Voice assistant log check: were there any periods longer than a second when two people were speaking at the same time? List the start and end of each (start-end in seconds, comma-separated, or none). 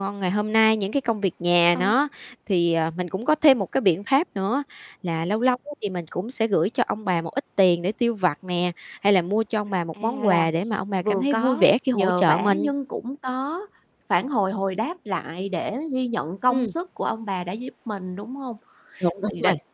11.0-12.7